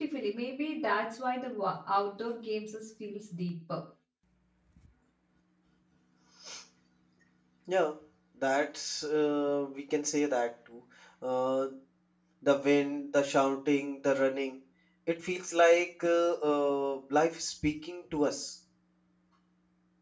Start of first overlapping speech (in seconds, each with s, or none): none